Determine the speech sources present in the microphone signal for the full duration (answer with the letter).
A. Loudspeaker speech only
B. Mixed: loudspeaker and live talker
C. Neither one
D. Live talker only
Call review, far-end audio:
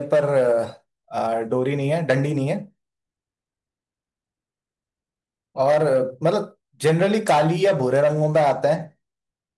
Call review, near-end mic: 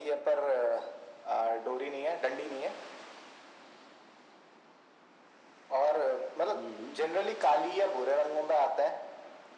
B